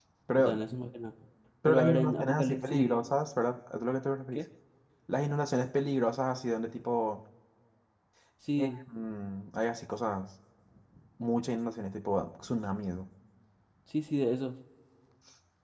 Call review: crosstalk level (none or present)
present